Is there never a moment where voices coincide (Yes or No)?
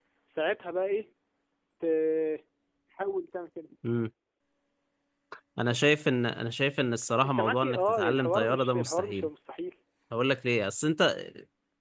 No